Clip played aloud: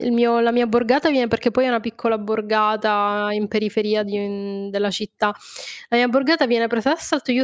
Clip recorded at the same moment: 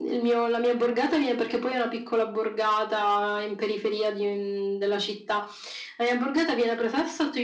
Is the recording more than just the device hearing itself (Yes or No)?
No